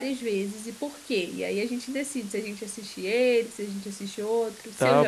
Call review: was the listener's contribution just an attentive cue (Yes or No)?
No